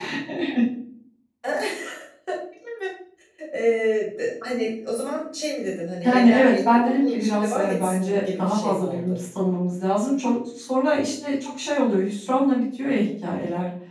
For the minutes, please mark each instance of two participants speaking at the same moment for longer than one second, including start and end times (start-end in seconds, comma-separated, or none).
6.0-9.2